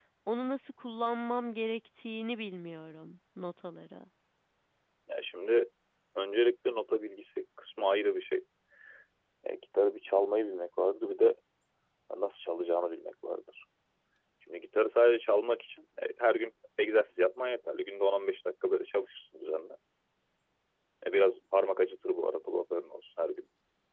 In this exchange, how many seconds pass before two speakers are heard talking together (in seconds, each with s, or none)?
none